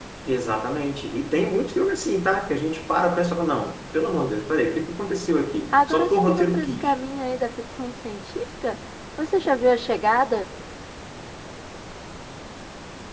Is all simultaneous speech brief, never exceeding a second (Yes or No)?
No